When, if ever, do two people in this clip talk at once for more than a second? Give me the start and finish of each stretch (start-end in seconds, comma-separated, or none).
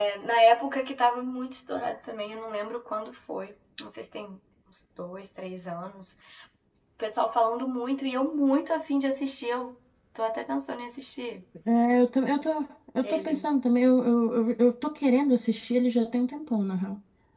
none